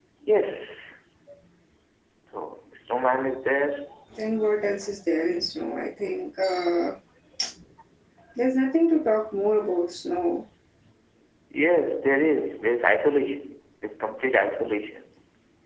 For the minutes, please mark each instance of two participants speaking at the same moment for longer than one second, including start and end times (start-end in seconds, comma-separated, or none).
none